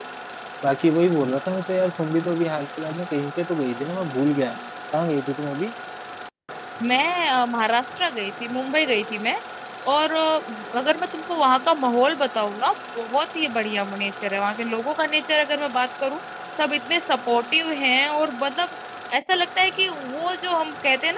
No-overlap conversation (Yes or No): Yes